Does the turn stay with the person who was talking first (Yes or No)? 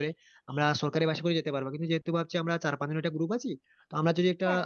Yes